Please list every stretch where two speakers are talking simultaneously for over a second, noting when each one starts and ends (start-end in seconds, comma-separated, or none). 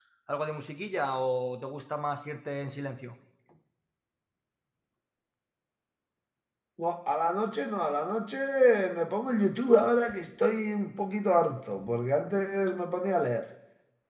none